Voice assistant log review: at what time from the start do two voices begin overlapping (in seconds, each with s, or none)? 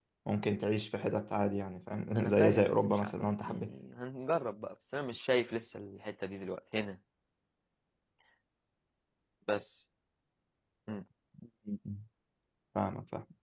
2.1 s